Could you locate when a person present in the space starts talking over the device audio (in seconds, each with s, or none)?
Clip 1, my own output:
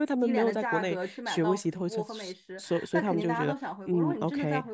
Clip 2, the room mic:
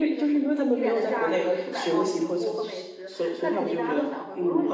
none